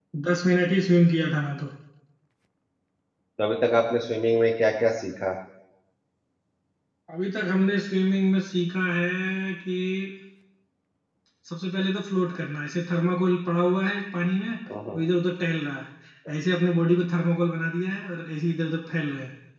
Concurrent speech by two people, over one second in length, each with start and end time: none

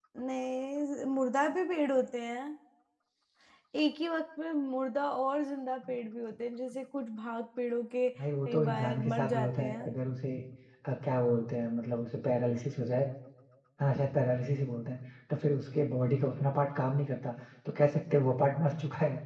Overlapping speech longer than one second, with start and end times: 8.4-9.9

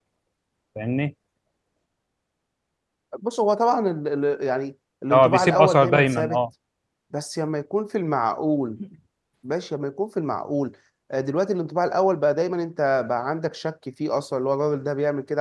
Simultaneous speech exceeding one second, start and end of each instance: 5.1-6.4

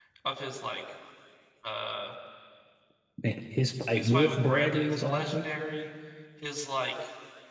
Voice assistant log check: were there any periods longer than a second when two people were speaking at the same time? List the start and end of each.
4.0-5.5

